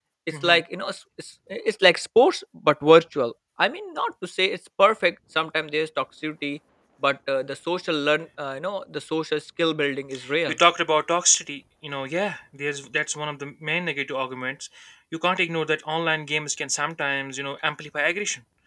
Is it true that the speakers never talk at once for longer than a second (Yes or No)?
Yes